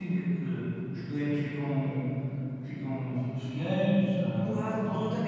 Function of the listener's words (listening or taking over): taking over